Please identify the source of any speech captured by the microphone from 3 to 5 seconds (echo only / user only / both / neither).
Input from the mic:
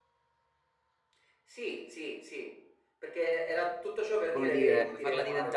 both